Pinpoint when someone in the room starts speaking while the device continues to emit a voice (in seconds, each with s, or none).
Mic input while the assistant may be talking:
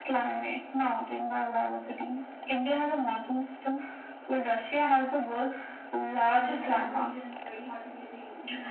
6.3 s